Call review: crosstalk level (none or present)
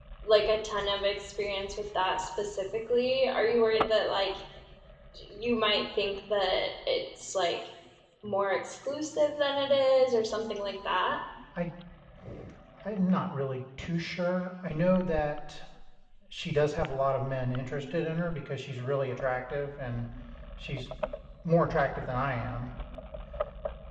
none